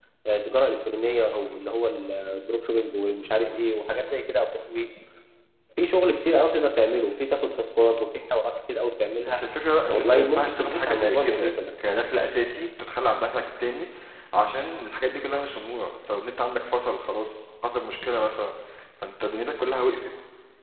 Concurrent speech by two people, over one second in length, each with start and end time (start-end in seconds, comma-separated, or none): 9.9-11.5